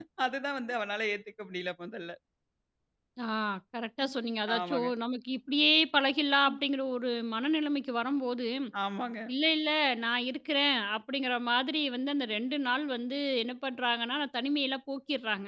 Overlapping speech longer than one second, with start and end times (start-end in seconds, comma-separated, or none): none